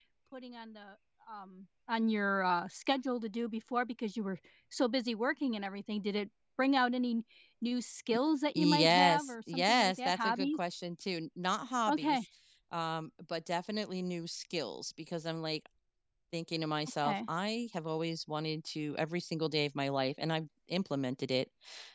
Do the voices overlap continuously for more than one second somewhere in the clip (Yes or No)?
Yes